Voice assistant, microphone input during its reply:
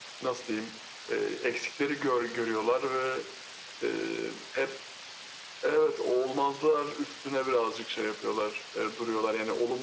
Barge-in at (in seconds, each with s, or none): none